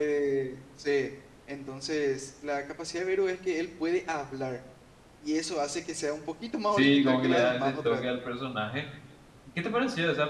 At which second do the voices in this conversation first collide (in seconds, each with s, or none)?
6.7 s